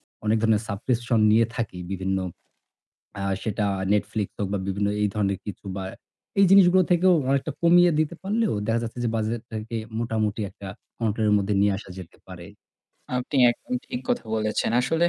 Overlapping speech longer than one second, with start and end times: none

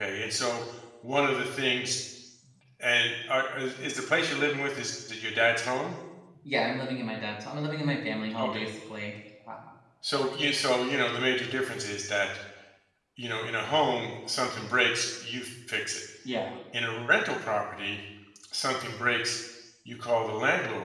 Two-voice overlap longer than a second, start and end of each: none

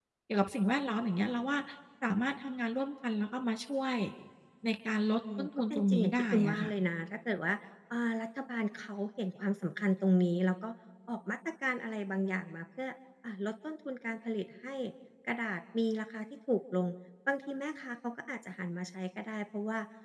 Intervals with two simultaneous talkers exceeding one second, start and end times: 5.4-6.7

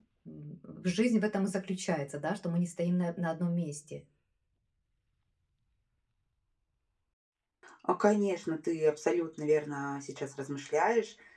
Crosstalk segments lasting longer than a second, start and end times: none

